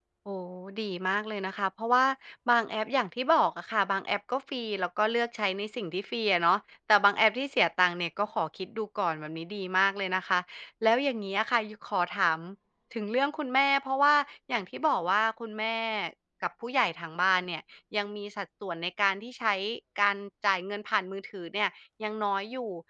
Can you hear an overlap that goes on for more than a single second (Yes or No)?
No